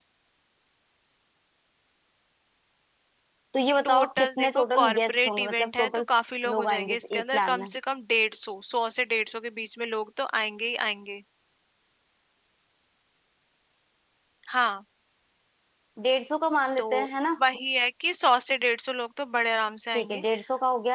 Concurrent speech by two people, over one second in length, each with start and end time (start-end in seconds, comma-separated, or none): 3.8-5.9, 6.5-7.7